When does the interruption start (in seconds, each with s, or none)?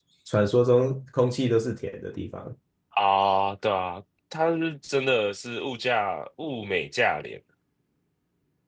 none